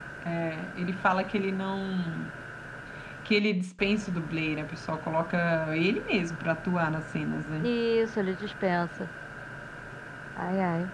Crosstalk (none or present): none